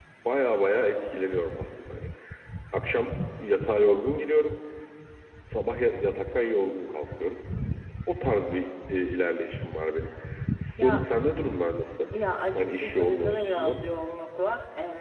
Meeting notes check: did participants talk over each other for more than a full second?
Yes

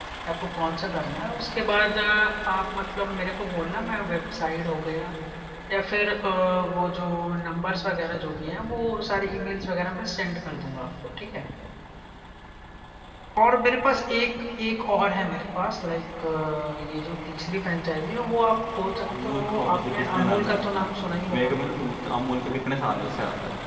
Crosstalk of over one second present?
Yes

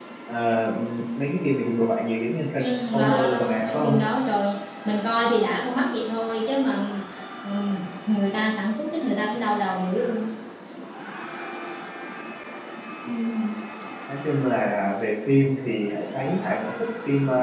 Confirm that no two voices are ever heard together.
No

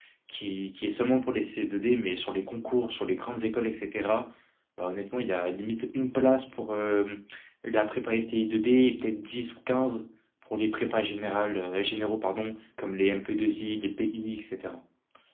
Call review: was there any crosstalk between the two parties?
No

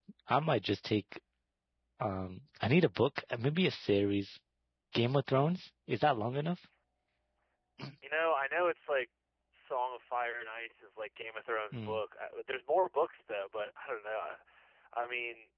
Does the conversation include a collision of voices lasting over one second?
No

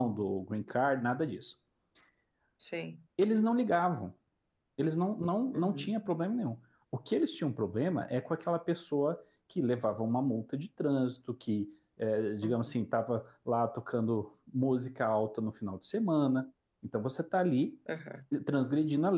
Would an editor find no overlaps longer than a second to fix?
Yes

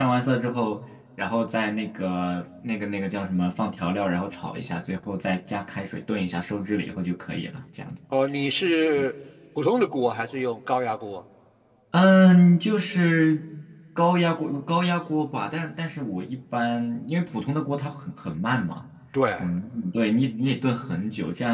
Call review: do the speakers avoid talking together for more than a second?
Yes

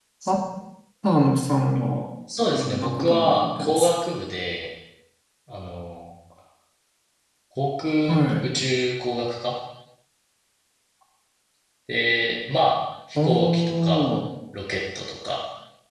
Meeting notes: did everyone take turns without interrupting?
No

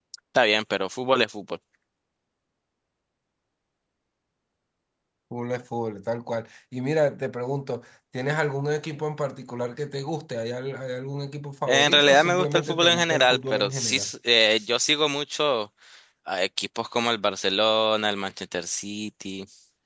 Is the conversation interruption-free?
No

